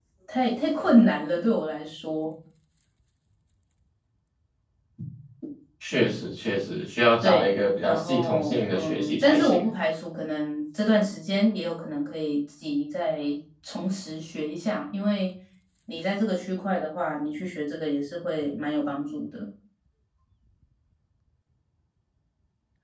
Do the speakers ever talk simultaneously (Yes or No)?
Yes